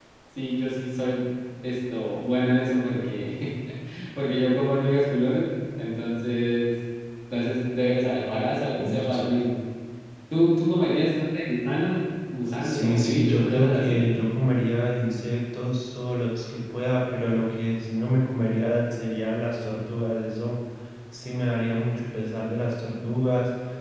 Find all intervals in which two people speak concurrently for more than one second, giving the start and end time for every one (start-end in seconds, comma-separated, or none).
12.6-14.0